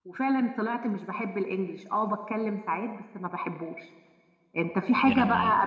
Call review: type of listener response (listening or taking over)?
listening